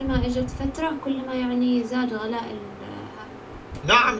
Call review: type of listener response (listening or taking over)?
taking over